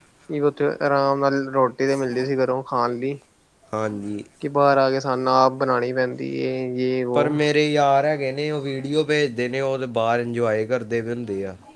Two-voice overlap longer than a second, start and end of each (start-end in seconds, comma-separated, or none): none